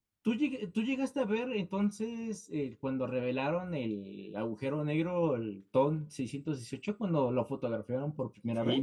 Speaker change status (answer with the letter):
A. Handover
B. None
A